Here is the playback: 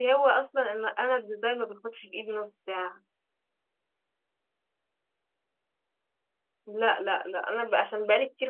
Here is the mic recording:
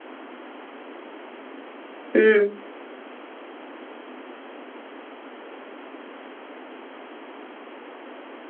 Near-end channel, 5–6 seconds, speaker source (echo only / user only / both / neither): neither